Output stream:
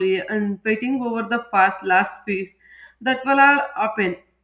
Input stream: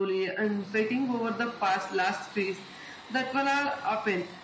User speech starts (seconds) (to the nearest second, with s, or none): none